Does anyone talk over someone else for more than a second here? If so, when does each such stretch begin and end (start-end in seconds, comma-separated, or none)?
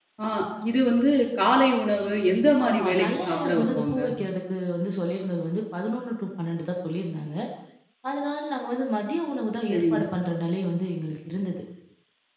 2.7-4.0